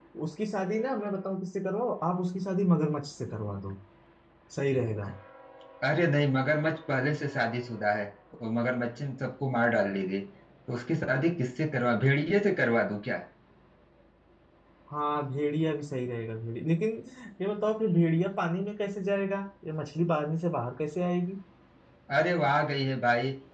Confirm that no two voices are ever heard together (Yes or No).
Yes